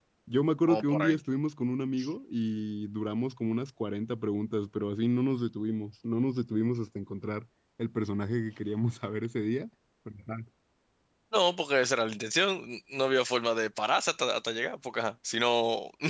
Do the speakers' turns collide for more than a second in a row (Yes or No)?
No